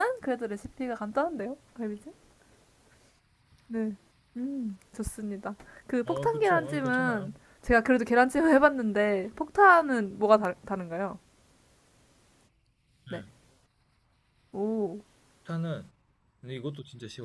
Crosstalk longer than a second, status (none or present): present